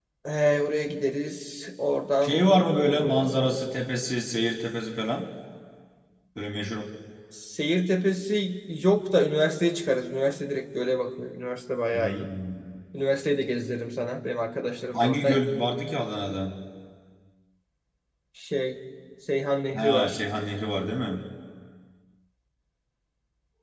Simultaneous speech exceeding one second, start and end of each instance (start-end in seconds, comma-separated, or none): 2.2-3.7